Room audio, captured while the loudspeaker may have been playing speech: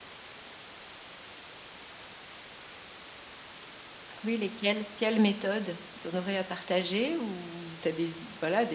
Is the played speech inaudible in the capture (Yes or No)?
Yes